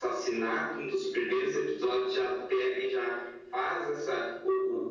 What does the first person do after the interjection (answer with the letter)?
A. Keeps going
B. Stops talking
A